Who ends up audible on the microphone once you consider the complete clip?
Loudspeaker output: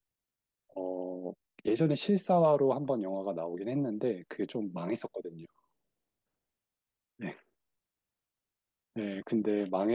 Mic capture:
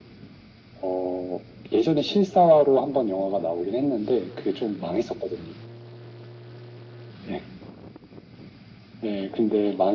echo only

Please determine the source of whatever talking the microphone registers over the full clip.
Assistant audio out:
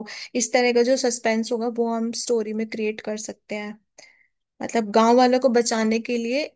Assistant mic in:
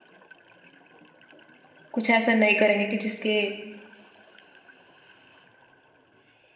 user only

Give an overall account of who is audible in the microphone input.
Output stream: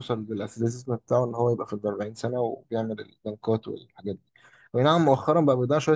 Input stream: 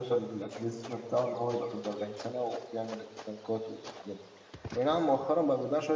echo only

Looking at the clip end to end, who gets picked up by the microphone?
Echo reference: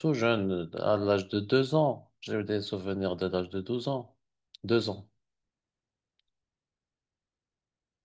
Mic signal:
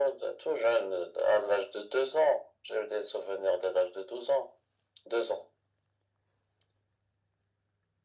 echo only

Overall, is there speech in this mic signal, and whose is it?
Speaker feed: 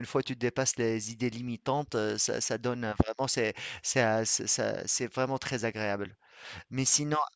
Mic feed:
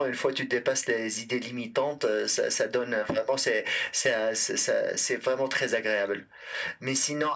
echo only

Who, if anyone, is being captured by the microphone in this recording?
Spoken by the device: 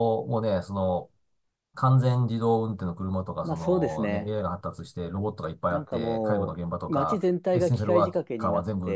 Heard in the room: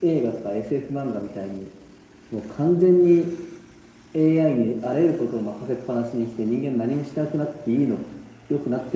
user only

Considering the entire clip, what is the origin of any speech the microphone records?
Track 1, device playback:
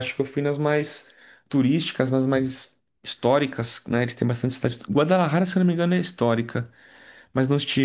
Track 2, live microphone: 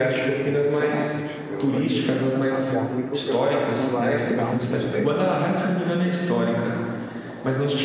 both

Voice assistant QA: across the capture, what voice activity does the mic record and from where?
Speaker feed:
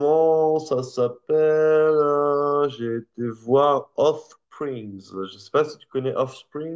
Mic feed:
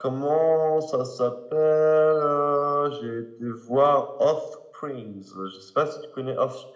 echo only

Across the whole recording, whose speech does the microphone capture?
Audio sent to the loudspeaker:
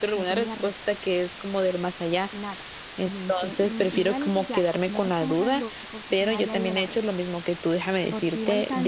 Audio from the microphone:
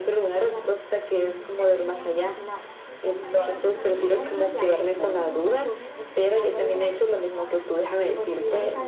both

